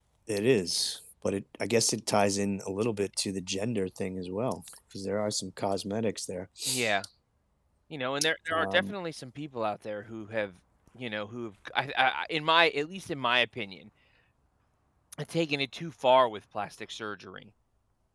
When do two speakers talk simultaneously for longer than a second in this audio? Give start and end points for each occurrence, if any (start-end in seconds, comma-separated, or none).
none